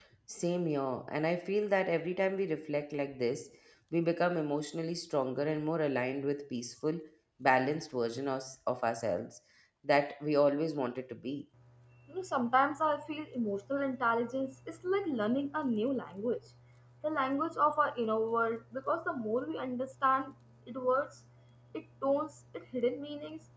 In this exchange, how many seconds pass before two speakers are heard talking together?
none

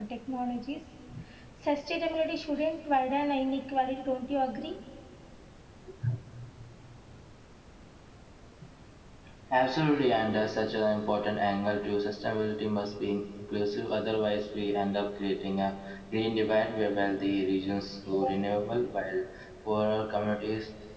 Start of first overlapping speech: none

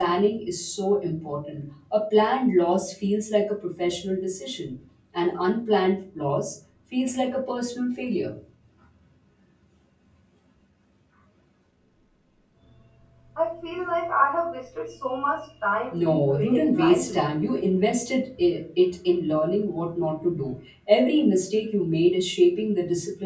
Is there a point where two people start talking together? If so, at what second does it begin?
16 s

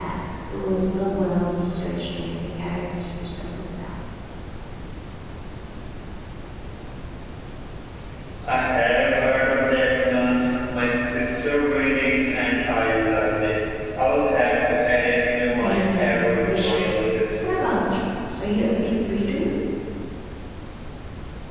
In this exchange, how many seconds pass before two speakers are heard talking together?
16 s

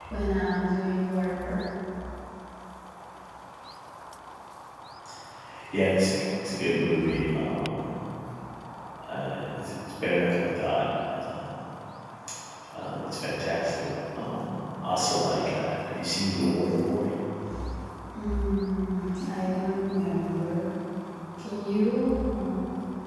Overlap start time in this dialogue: none

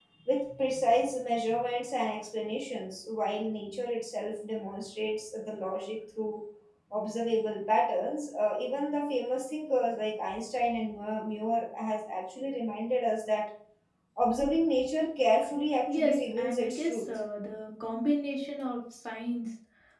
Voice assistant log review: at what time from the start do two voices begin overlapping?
16 s

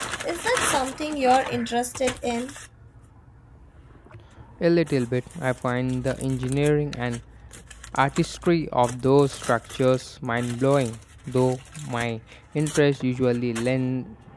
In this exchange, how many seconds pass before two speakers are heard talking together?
none

